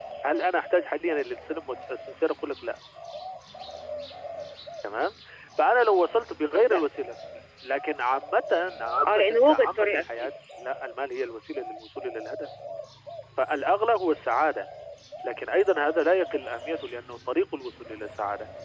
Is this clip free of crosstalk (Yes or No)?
No